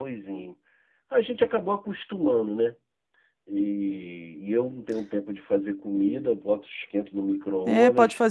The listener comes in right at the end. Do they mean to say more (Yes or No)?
Yes